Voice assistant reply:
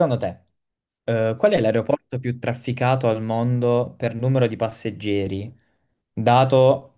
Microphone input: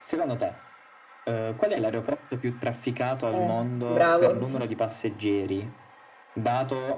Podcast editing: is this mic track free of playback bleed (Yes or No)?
No